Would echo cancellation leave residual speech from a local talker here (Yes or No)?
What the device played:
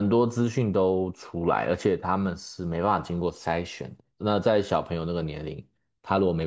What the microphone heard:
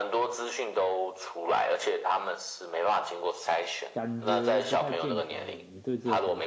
Yes